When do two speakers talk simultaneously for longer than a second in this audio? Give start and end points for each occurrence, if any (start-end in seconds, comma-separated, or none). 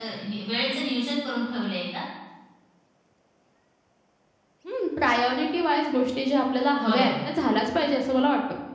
none